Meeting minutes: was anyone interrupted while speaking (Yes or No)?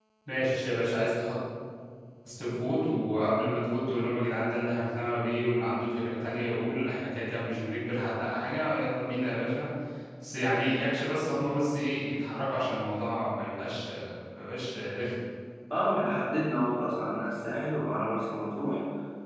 No